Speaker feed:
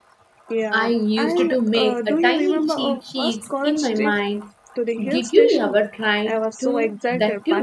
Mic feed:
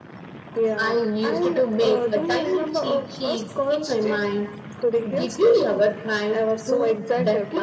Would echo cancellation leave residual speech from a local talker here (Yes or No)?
No